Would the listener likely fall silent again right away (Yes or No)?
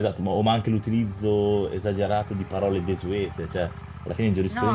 Yes